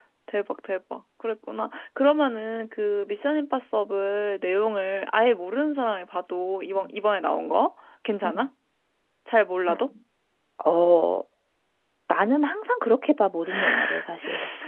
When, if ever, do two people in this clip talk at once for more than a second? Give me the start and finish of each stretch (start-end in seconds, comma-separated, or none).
none